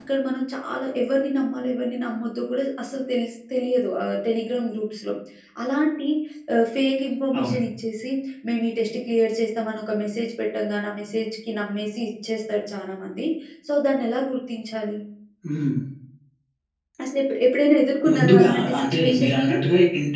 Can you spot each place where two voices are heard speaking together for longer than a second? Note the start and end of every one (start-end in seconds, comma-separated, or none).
18.1-19.6